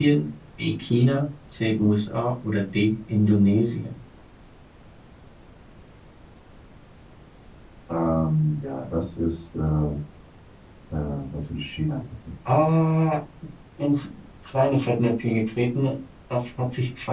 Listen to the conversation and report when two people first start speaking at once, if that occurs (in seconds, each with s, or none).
none